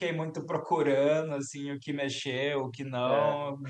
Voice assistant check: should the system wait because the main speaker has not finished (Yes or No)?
Yes